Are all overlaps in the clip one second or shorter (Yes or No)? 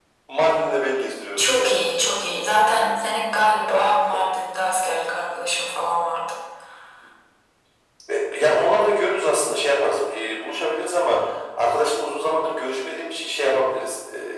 Yes